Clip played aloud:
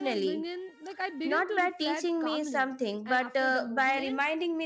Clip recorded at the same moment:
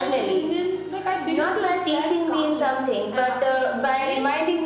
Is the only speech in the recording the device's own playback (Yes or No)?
Yes